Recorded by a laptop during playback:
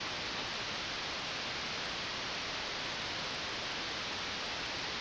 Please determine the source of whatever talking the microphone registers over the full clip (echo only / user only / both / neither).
neither